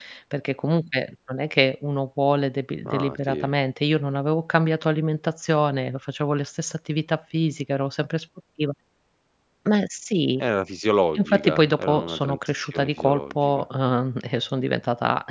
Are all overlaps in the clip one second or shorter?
No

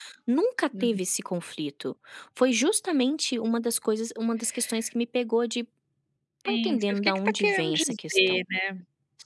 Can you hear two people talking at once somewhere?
Yes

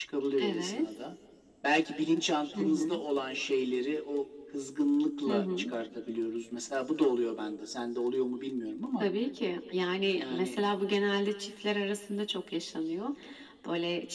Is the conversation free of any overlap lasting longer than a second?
Yes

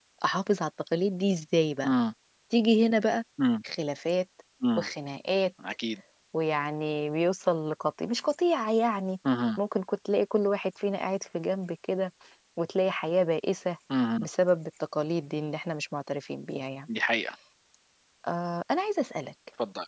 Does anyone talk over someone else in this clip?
No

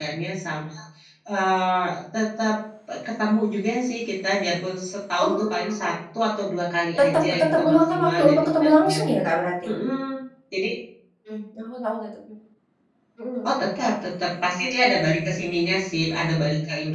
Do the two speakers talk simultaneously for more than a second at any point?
Yes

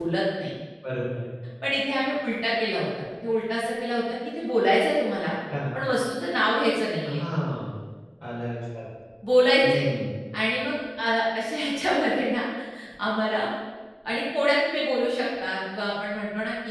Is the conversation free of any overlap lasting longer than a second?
Yes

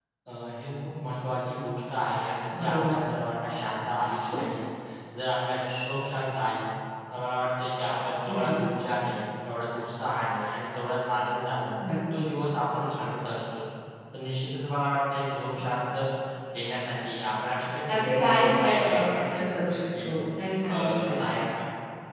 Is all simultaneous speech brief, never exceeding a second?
No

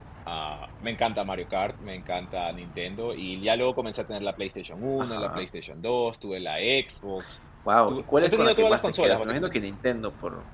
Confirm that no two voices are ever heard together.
No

